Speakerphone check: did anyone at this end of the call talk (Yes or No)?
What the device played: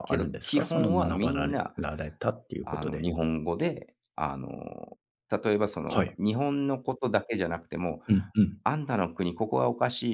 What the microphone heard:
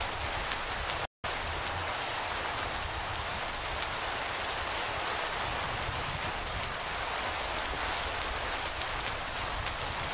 No